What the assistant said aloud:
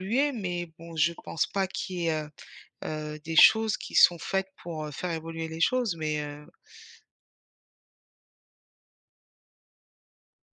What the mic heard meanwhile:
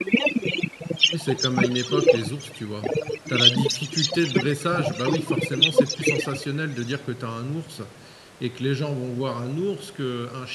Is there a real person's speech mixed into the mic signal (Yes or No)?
Yes